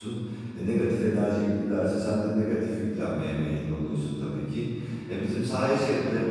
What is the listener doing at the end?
listening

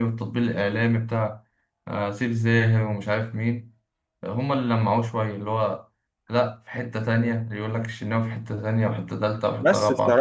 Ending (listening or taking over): taking over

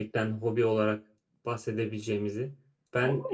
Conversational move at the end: taking over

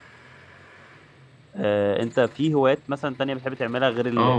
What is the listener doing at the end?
taking over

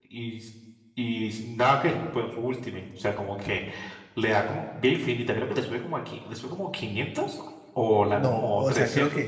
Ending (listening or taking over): taking over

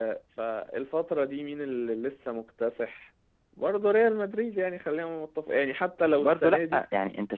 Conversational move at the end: taking over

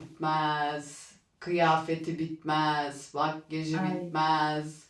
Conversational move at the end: listening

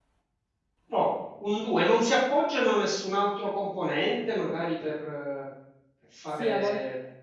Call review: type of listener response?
taking over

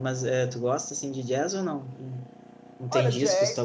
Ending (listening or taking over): taking over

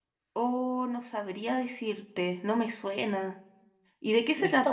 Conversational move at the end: taking over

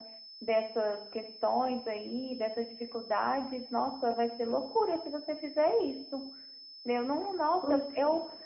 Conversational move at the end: listening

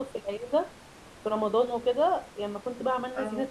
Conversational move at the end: listening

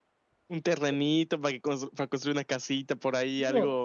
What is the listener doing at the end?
taking over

